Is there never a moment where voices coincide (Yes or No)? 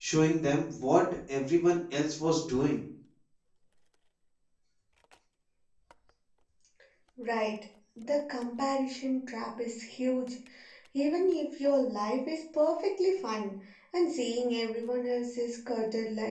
Yes